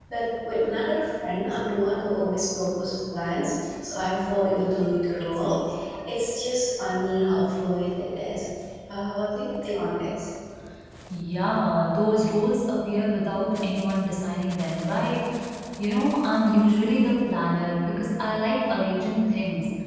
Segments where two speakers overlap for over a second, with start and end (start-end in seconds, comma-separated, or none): none